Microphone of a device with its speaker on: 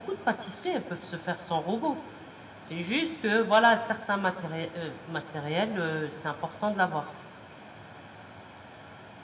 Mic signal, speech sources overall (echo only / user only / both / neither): echo only